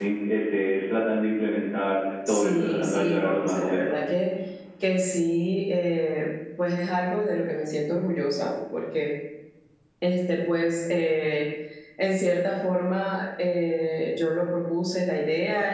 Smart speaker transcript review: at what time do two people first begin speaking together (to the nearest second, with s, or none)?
2 s